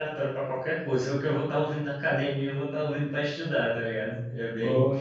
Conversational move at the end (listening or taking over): listening